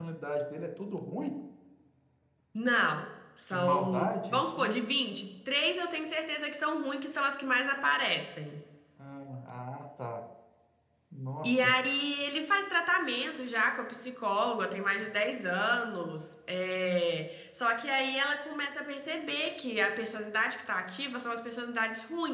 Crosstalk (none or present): present